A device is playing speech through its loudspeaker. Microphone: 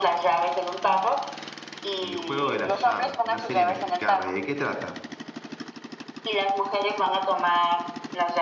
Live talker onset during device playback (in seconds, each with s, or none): 2.0 s